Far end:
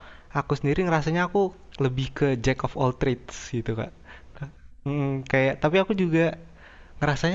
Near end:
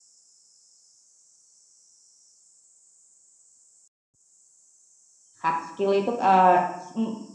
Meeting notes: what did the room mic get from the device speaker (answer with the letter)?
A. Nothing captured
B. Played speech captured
A